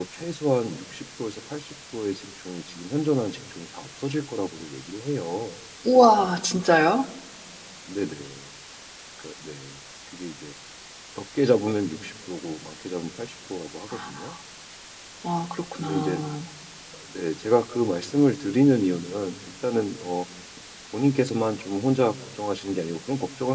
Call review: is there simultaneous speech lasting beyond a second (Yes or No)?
No